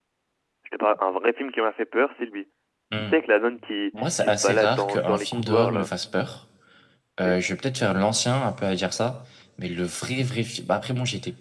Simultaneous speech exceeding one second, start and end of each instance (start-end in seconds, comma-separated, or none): 4.2-5.9